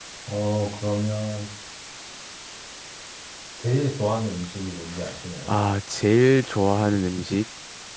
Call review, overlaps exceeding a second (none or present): none